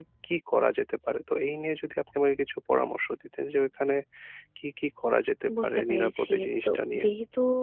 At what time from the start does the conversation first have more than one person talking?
5.5 s

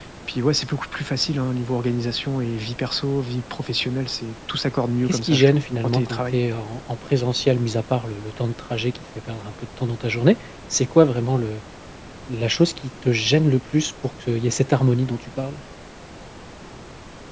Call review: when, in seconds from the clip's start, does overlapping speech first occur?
5.0 s

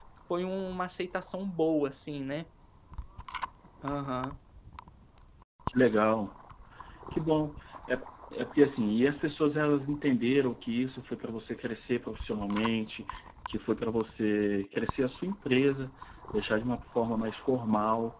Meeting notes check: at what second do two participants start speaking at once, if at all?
none

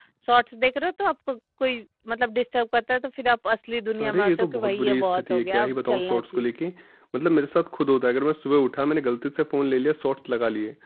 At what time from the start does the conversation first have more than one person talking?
4.0 s

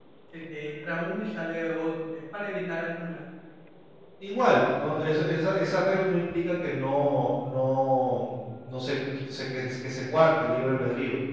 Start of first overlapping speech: none

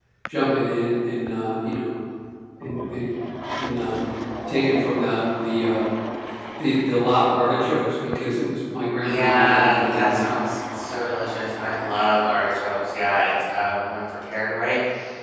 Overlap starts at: 9.0 s

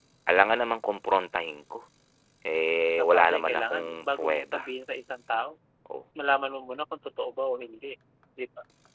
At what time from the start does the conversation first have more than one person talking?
3.0 s

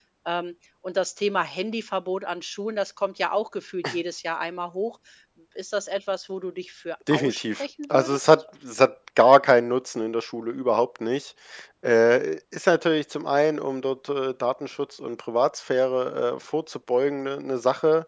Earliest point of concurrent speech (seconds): 7.1 s

